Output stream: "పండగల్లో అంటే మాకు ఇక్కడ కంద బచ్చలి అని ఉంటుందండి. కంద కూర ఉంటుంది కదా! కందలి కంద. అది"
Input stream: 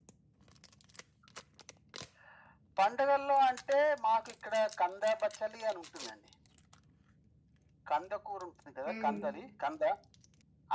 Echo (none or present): present